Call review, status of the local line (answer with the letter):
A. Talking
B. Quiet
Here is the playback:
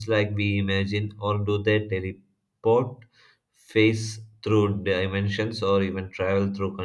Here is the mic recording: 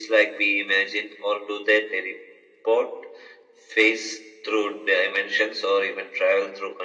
B